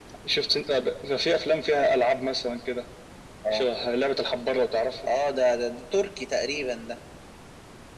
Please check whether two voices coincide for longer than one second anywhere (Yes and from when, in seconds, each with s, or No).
No